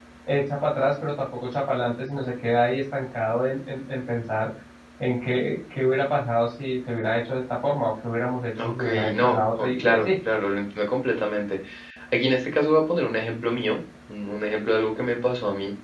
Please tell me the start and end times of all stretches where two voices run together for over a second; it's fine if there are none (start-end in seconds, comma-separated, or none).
8.6-10.1